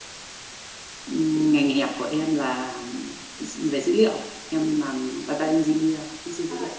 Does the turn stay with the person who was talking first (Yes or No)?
No